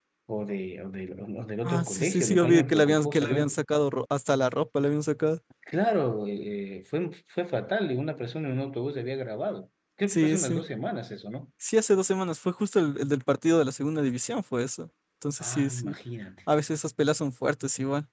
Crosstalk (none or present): present